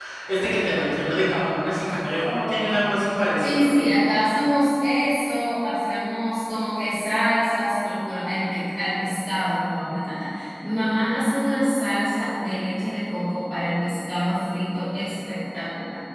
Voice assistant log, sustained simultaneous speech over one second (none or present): none